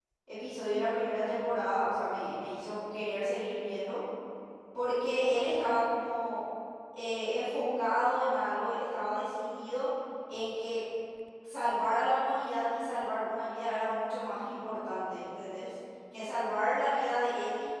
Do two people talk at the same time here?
No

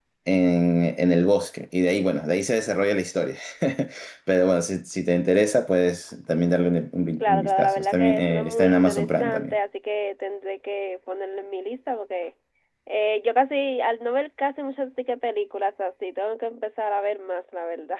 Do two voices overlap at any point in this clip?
Yes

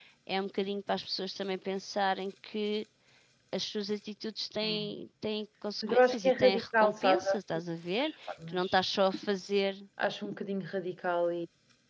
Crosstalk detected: Yes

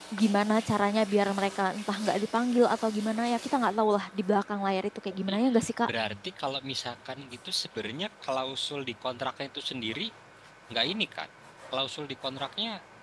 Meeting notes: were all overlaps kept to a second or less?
Yes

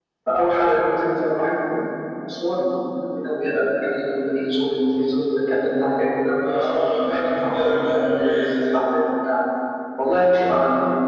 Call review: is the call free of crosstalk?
No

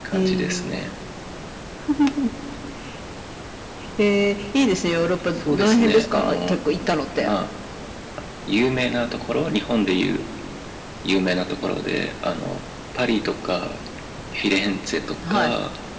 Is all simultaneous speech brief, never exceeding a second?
No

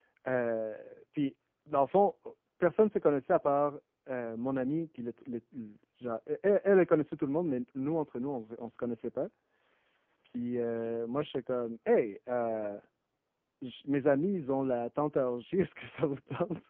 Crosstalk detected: No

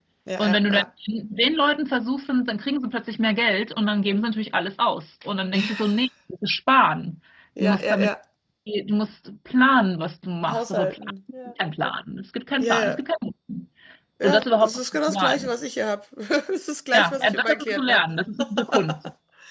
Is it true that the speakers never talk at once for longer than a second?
No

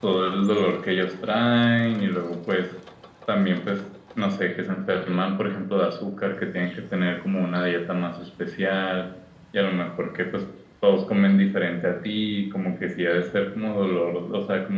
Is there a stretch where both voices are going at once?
No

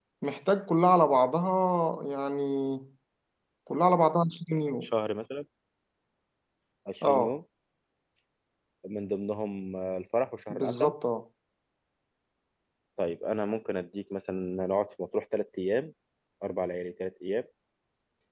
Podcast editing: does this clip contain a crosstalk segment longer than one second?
No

